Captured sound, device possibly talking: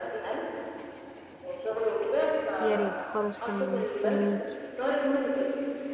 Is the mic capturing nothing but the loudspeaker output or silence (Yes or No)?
No